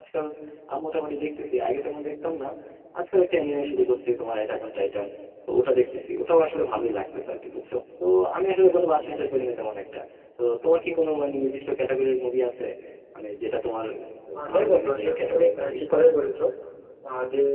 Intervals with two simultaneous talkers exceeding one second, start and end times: 14.5-15.8

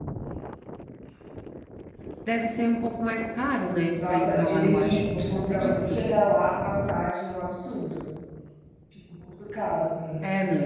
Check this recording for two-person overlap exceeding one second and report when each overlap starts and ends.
4.0-5.9

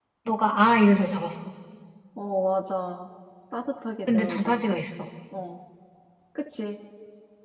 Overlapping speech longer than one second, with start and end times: none

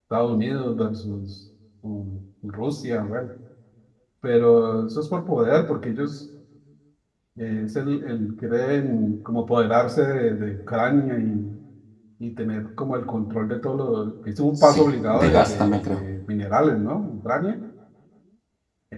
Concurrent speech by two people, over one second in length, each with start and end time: 14.6-16.0

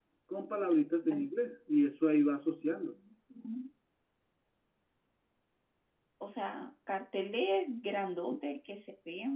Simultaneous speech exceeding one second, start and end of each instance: none

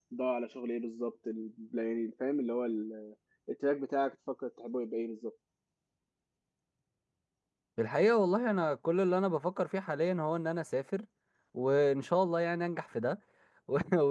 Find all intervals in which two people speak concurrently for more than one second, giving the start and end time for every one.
none

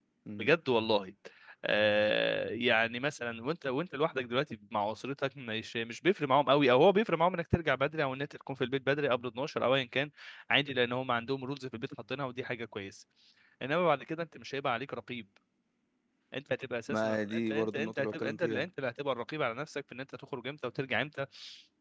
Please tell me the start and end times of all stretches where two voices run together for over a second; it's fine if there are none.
16.9-18.6

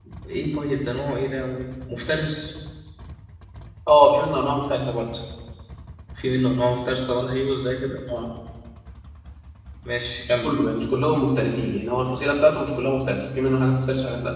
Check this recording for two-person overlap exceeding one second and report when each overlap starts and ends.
none

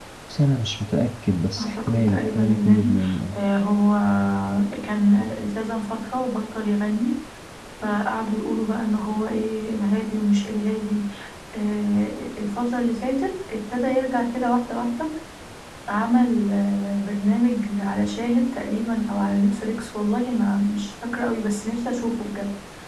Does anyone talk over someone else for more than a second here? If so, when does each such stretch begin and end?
1.6-2.9

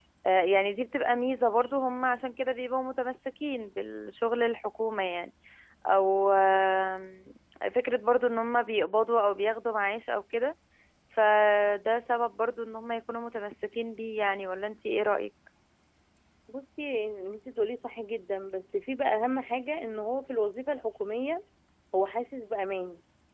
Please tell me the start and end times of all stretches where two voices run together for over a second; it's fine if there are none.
none

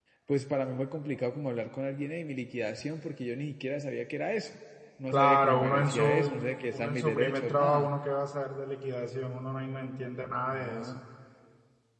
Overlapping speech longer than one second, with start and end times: 5.1-7.9

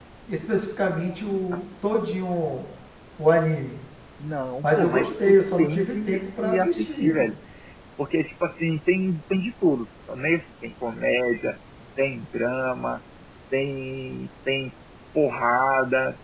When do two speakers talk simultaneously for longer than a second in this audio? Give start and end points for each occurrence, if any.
4.6-7.3

